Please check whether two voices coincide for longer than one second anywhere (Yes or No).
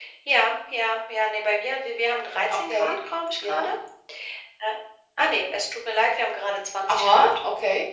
No